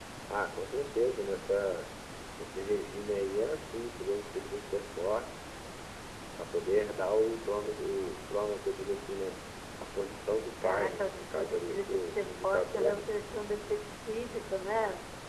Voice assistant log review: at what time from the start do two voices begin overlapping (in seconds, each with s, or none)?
10.6 s